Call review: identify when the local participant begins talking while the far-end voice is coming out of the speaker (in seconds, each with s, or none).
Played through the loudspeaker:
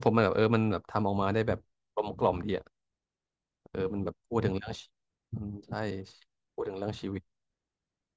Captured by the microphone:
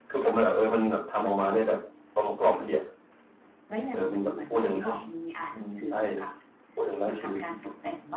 3.7 s